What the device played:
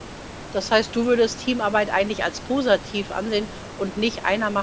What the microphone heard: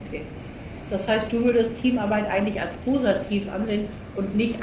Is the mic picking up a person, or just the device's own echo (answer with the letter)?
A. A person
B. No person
B